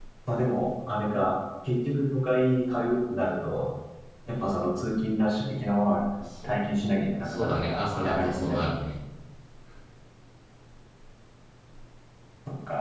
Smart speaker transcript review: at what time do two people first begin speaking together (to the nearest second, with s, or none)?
7 s